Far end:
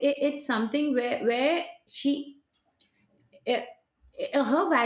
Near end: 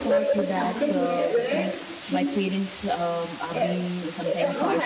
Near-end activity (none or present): present